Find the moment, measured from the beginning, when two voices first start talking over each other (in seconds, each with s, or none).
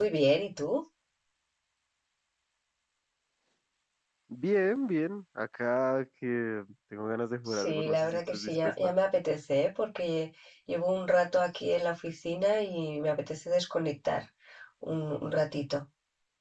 7.5 s